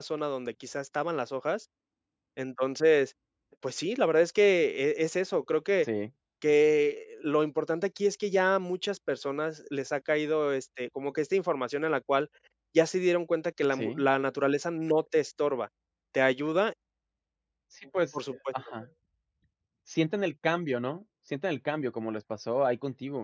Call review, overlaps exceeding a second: none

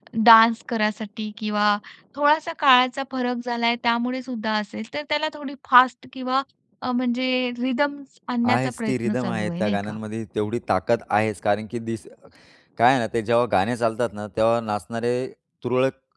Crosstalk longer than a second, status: present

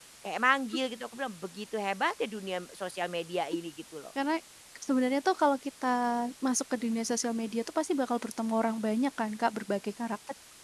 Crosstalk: none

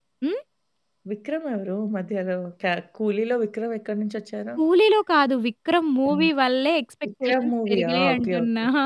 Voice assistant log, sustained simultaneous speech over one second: present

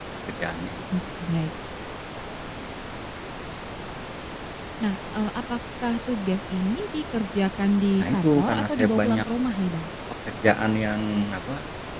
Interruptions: present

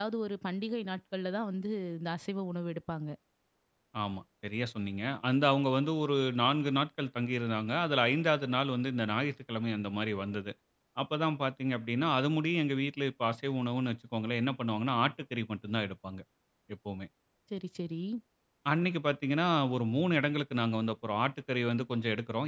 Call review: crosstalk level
none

